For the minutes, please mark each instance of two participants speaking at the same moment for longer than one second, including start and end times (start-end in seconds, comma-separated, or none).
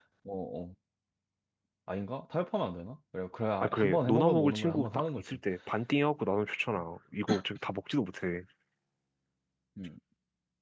3.6-5.2